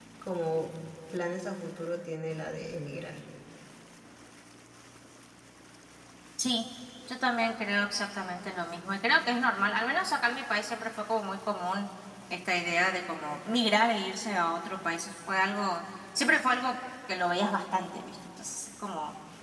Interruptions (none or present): none